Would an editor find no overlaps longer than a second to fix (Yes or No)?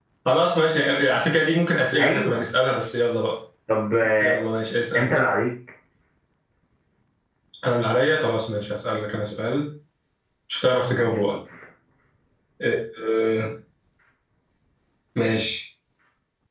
Yes